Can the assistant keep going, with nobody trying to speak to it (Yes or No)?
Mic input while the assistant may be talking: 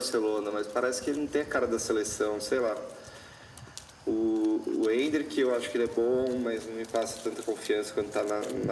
Yes